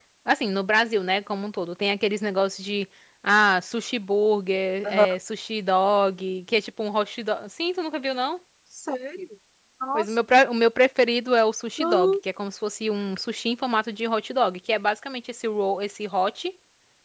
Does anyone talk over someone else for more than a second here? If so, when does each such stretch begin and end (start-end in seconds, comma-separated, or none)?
none